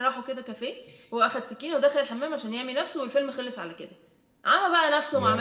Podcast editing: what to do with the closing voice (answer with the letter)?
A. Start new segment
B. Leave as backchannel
B